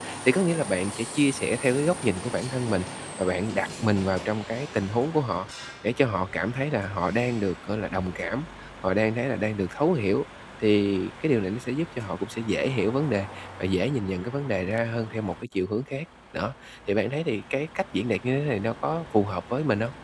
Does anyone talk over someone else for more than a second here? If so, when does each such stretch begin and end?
none

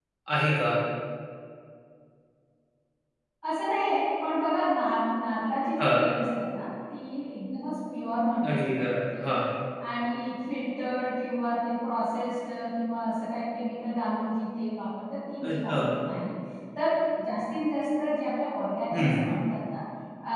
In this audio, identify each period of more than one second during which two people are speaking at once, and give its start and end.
none

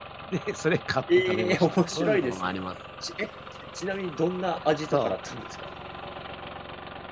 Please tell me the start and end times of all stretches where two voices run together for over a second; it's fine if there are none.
1.1-2.5

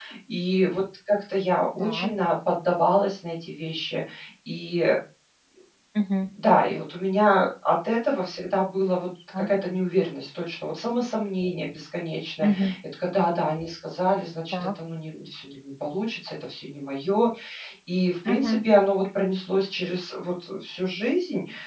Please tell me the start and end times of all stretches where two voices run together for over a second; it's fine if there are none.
none

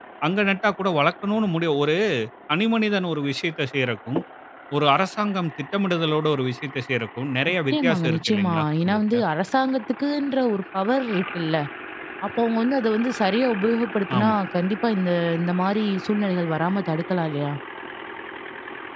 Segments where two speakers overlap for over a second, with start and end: 7.5-9.2

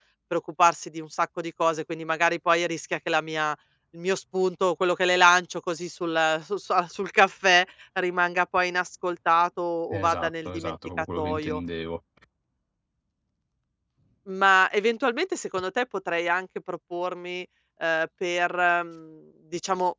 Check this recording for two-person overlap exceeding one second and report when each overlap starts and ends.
9.9-11.6

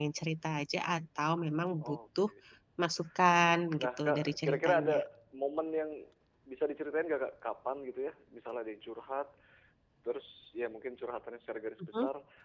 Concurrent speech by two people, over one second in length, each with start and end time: 3.8-5.0

